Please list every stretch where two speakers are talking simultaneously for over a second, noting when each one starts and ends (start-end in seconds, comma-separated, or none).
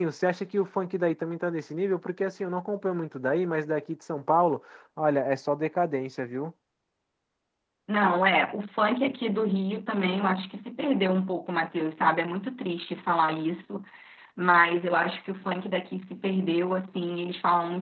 none